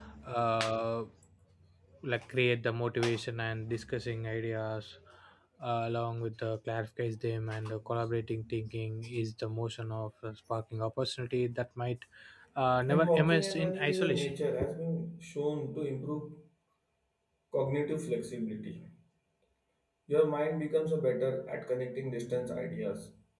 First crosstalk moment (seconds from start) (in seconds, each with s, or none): 12.9 s